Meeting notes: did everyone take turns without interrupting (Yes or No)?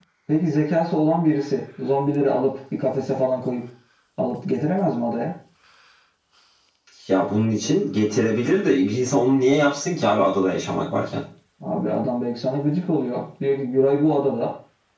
Yes